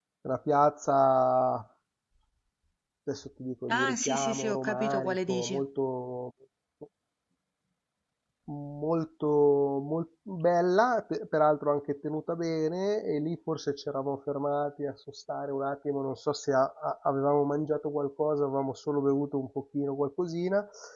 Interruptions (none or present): present